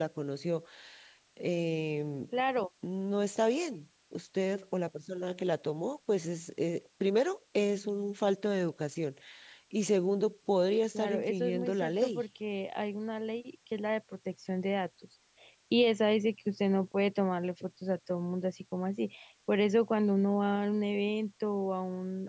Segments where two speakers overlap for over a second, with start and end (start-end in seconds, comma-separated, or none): 11.0-12.2